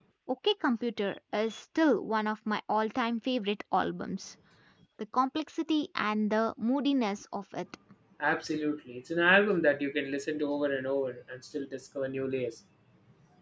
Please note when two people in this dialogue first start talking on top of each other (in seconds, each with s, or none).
none